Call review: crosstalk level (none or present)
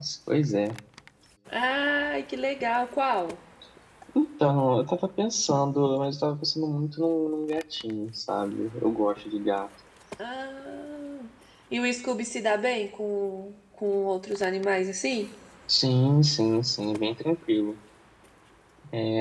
none